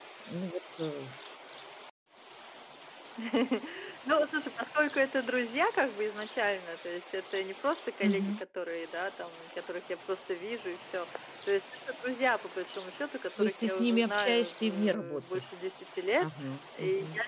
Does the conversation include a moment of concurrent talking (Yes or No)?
Yes